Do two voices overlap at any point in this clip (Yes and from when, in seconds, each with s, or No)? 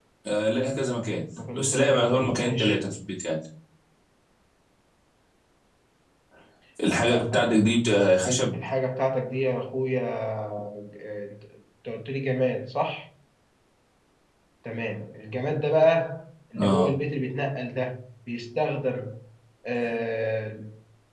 Yes, from 1.4 s